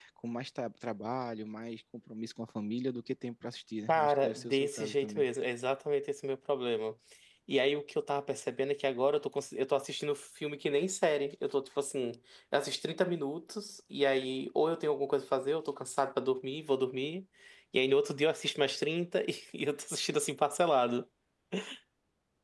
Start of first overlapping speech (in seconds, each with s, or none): 3.9 s